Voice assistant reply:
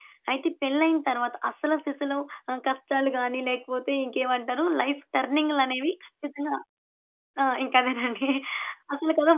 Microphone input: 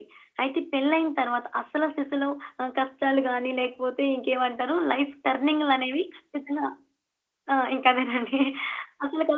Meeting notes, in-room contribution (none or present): none